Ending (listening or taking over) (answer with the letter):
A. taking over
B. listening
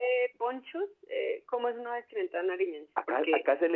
A